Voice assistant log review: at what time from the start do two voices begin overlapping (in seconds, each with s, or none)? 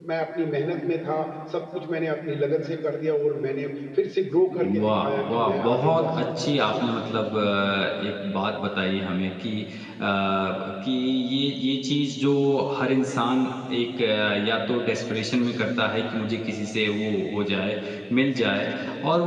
4.6 s